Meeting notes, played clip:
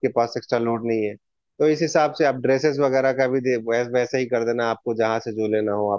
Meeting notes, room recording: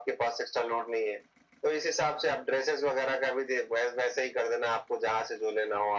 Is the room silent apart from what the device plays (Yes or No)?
Yes